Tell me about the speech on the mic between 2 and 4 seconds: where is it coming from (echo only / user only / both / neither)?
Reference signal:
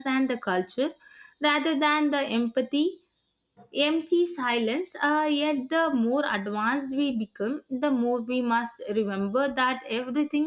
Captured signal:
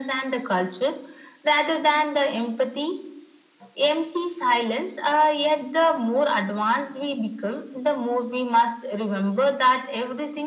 echo only